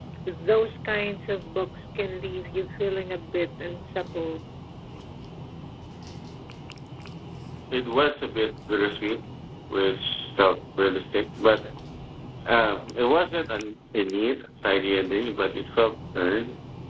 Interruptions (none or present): none